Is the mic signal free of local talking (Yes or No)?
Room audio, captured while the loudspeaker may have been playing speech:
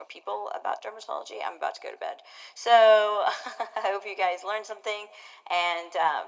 Yes